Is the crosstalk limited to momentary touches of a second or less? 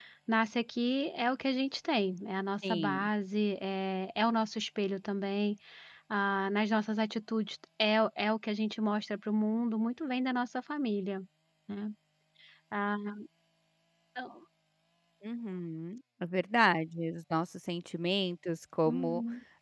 Yes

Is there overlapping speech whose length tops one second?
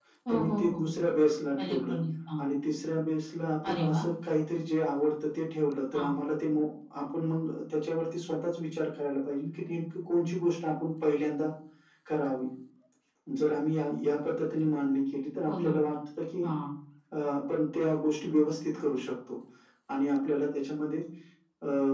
No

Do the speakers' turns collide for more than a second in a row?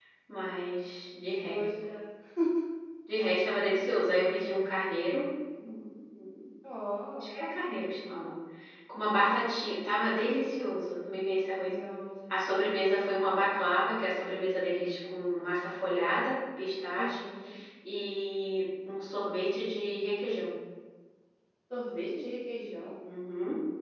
No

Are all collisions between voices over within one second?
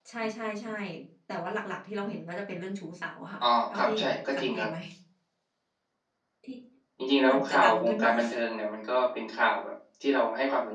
No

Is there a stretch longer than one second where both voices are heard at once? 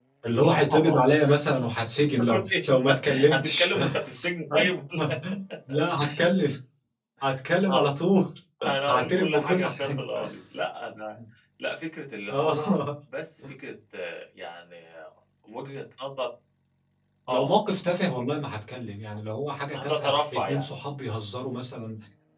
Yes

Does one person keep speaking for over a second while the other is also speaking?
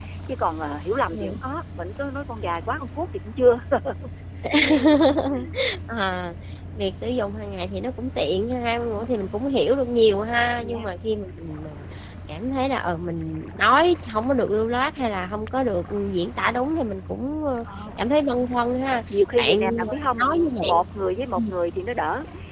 Yes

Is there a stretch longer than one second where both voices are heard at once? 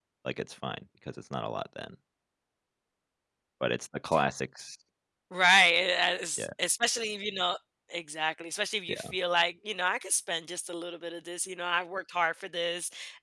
No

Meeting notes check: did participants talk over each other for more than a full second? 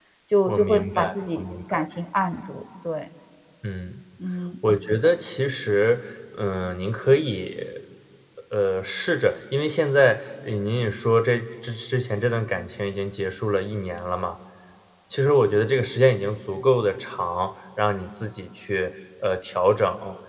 Yes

